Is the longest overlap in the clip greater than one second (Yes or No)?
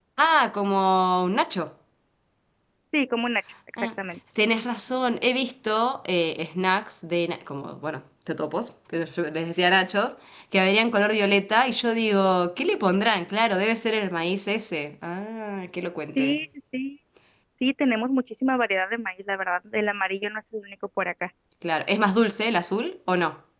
No